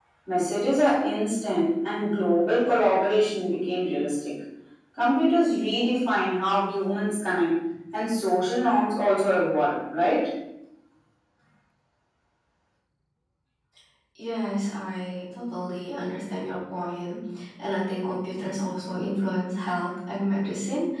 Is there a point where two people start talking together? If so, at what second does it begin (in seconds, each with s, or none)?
none